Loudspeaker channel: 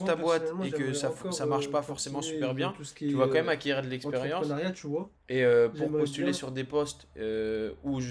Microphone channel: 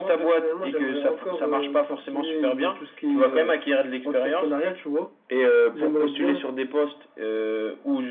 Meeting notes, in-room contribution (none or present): none